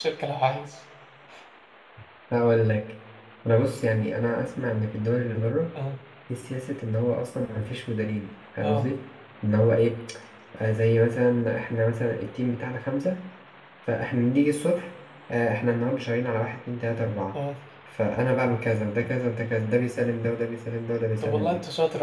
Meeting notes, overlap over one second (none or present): none